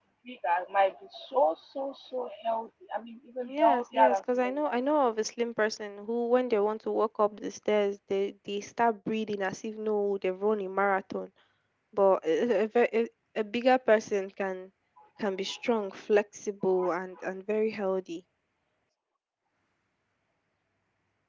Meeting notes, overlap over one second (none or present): present